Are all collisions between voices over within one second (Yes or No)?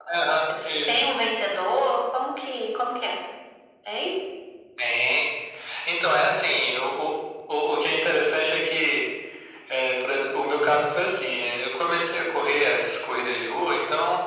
Yes